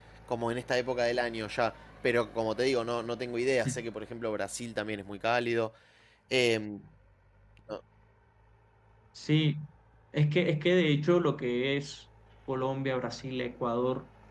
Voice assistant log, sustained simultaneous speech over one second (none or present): none